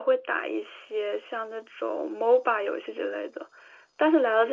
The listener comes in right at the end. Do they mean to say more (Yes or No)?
No